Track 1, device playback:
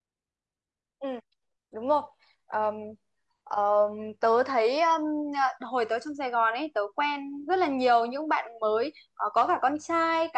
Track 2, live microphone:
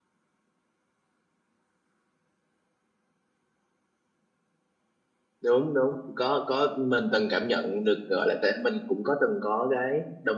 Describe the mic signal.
user only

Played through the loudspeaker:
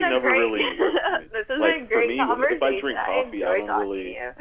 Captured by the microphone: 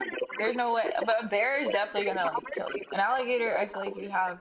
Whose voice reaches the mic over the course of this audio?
both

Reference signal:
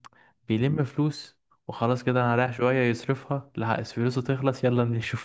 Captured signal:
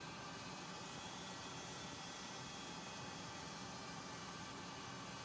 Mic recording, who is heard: neither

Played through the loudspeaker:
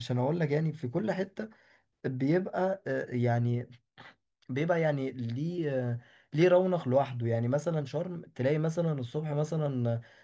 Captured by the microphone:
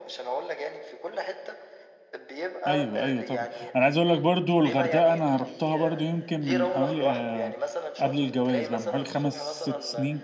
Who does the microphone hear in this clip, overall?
both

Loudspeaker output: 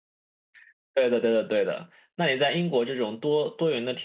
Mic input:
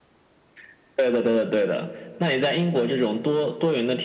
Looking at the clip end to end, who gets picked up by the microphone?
echo only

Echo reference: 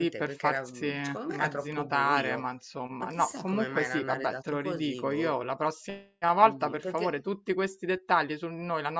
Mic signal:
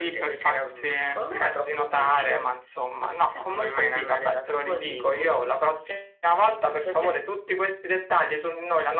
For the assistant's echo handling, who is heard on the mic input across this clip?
echo only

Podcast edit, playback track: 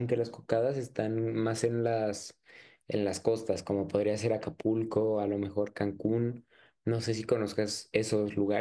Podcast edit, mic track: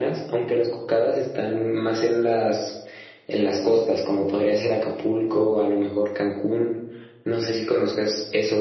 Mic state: echo only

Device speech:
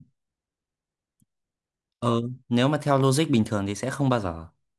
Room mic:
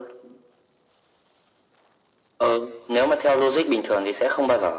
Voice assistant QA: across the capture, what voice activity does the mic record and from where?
echo only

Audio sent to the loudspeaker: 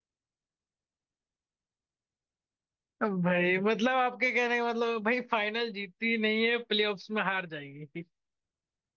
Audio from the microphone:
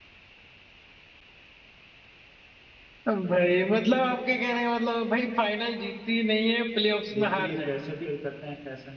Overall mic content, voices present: both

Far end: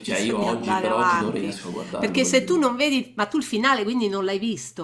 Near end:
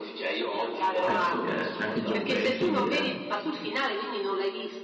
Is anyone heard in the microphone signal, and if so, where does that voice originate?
both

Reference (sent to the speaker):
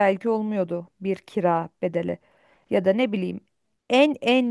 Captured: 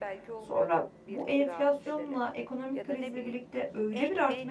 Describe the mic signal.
both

